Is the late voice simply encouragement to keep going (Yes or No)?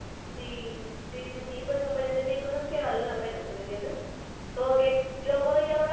Yes